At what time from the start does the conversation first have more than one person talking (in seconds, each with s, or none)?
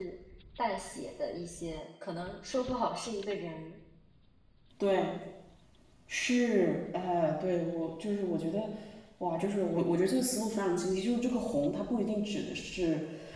none